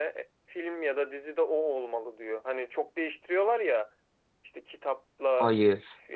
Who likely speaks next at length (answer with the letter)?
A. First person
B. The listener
A